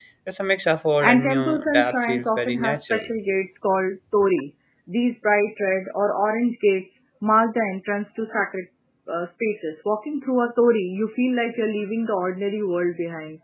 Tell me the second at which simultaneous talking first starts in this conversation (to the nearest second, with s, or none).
1 s